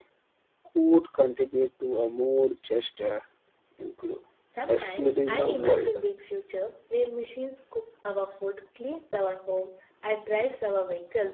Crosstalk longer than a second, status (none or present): present